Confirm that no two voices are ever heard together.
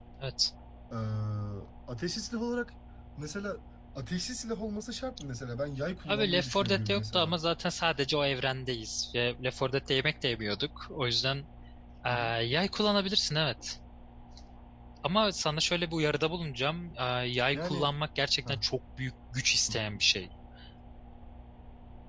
No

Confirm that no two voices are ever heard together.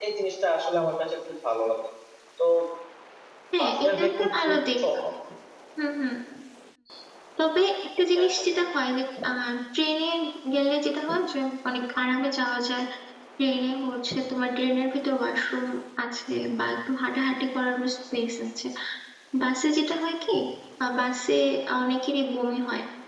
No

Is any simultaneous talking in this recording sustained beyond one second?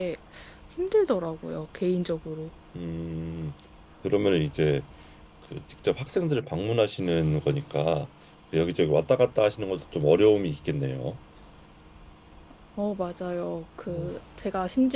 No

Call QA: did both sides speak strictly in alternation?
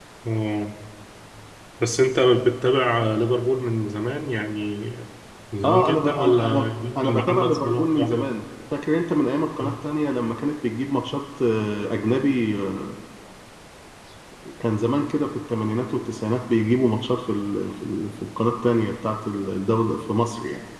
No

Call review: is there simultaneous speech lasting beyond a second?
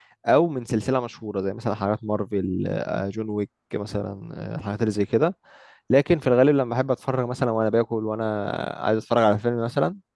No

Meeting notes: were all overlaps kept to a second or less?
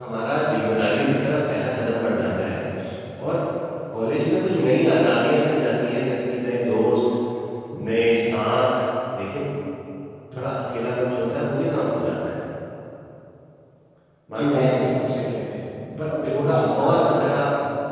No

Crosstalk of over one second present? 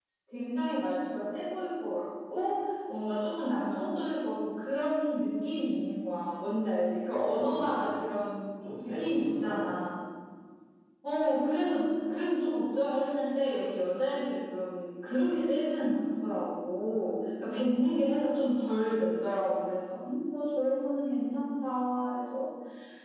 Yes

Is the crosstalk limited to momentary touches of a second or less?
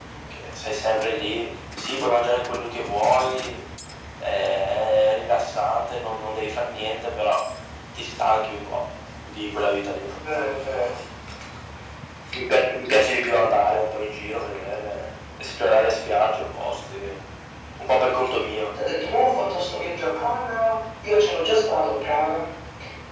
Yes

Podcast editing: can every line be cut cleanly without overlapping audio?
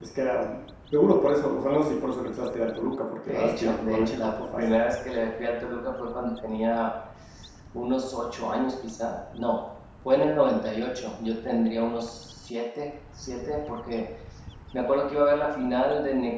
No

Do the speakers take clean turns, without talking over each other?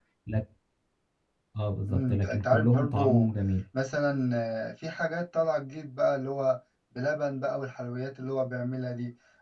No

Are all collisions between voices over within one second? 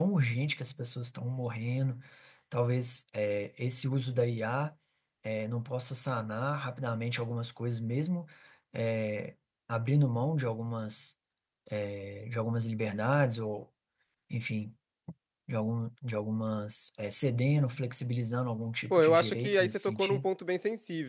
No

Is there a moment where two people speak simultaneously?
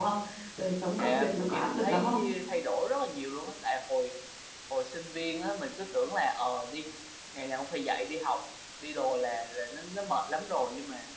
Yes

